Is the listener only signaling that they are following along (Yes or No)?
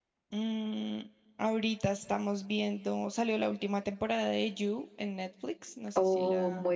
No